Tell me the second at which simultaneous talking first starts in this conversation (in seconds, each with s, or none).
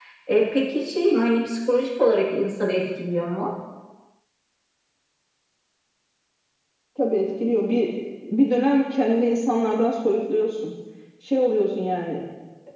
none